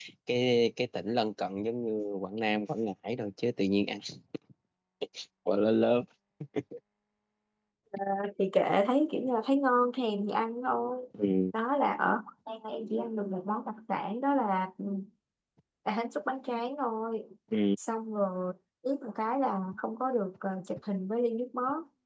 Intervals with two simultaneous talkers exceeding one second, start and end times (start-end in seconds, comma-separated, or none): none